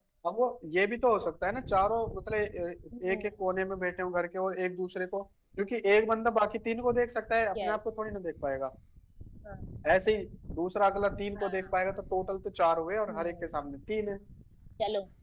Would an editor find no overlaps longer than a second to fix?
Yes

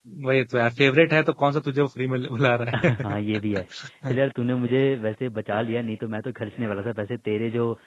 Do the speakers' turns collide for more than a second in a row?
No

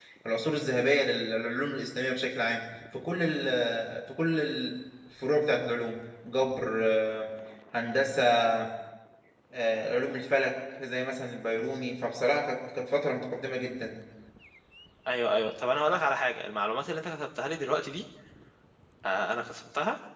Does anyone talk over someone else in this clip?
No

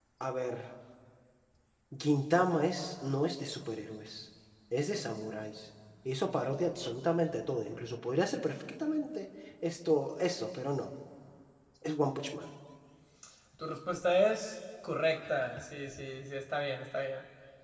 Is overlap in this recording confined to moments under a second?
Yes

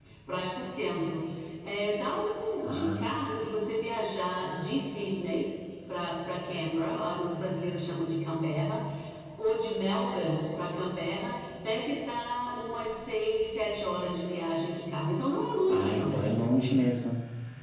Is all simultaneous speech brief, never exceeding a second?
Yes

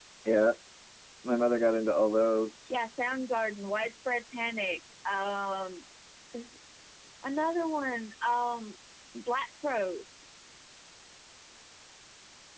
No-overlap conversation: Yes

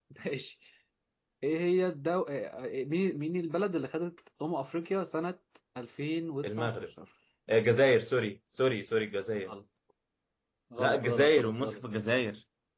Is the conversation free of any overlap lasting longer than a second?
No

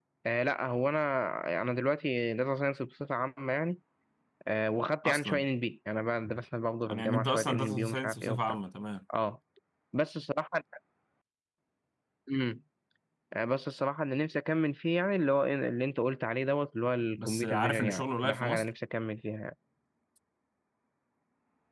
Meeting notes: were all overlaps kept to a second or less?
No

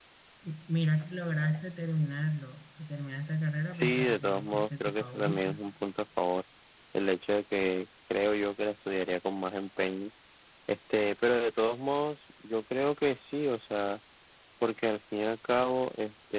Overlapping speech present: Yes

